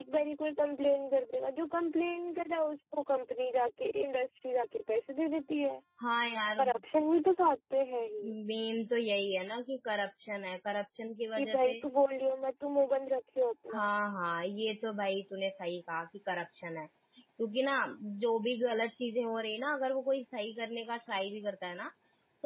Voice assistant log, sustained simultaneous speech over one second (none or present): none